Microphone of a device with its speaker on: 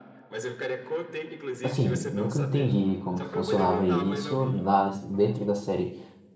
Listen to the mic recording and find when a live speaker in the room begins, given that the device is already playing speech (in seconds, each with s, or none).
1.6 s